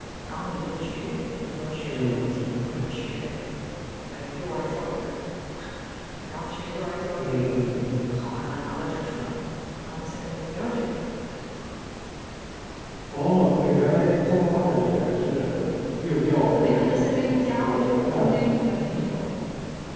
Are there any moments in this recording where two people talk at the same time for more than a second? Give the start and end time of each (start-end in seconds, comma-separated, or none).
16.5-18.3